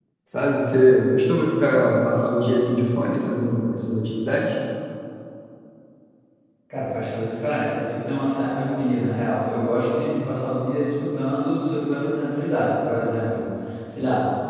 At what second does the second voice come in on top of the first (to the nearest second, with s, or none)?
none